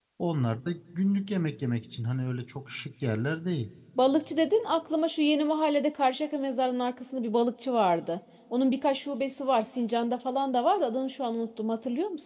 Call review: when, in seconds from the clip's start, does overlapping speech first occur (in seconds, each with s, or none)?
none